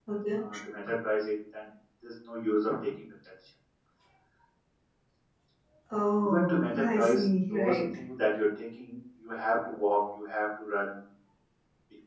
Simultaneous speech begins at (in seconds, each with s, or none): 6.2 s